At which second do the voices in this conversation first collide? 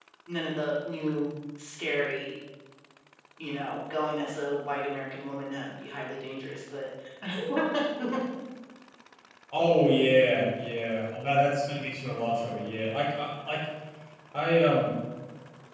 none

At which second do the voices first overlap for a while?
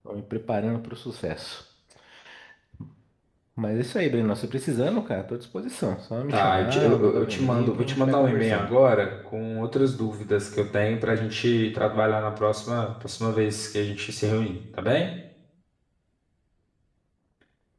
6.3 s

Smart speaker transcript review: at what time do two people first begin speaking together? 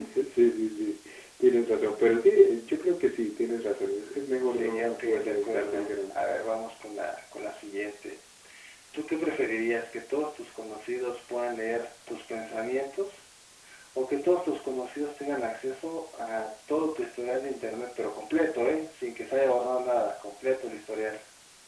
4.4 s

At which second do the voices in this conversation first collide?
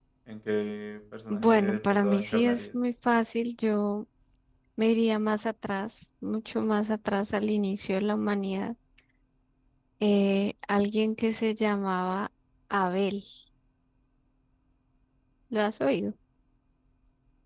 1.3 s

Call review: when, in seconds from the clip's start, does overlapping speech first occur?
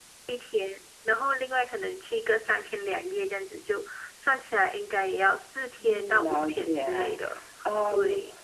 5.8 s

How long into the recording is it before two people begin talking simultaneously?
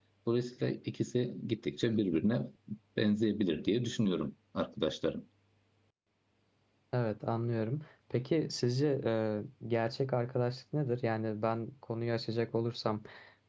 none

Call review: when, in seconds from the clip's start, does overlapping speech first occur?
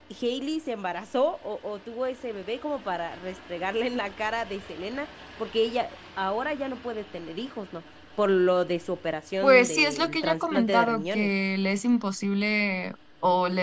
9.4 s

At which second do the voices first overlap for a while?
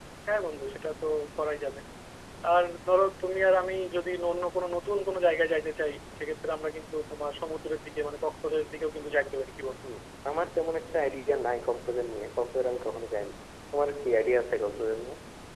none

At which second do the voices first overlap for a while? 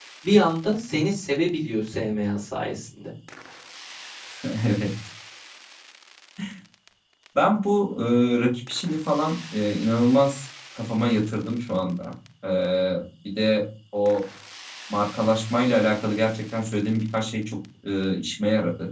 none

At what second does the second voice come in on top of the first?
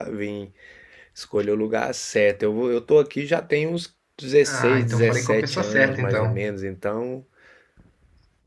4.5 s

